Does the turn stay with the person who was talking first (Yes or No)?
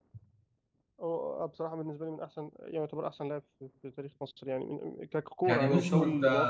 No